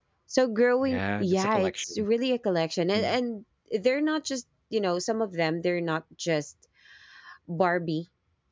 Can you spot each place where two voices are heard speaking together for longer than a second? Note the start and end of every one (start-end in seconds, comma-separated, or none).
0.8-2.0